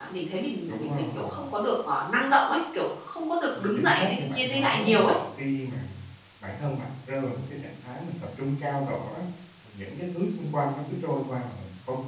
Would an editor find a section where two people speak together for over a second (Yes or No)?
Yes